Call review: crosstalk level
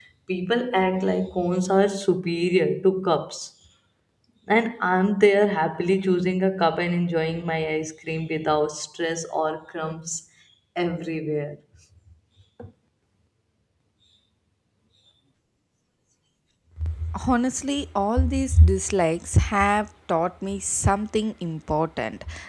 none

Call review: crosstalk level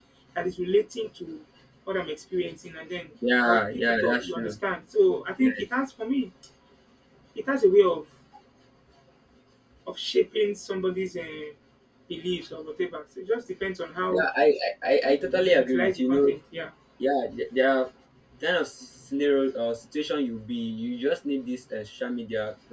present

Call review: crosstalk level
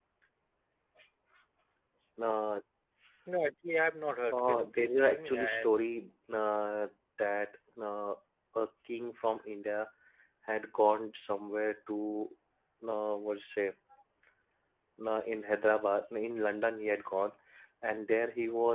present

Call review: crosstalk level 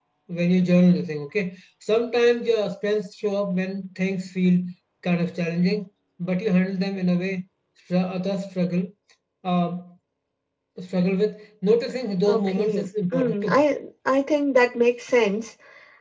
present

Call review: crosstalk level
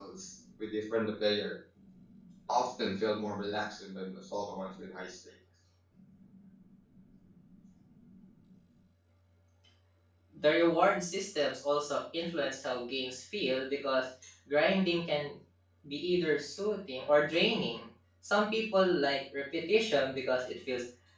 none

